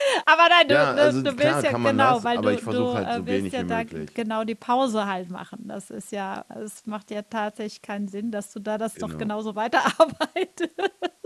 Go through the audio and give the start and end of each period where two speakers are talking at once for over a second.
0.7-4.1

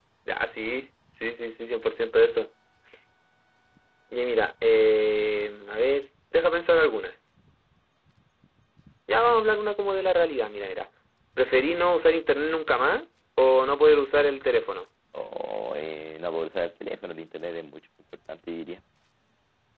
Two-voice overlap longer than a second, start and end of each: none

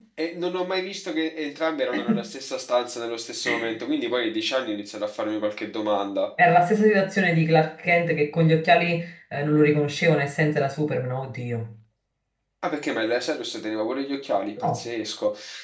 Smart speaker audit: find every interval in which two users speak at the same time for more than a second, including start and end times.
none

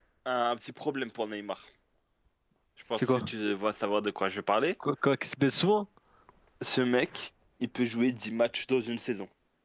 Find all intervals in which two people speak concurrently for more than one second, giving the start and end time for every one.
none

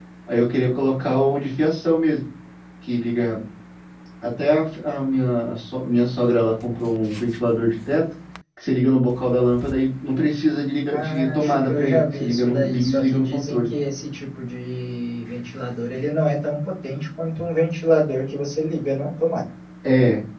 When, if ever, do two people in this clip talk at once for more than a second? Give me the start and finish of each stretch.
10.9-13.7

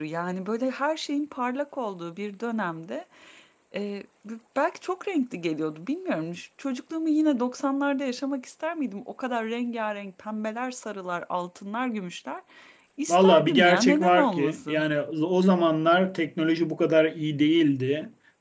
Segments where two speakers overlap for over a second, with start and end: 13.1-14.8

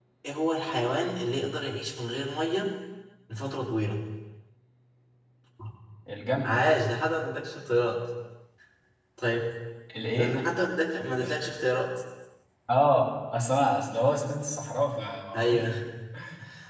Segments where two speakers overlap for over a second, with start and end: none

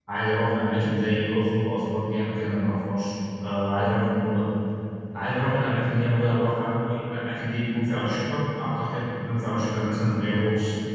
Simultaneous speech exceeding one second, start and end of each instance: none

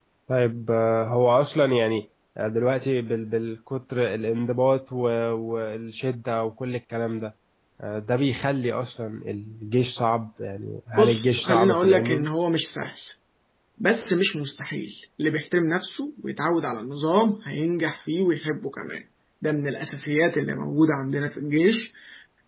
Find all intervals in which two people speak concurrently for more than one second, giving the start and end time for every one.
10.9-12.3

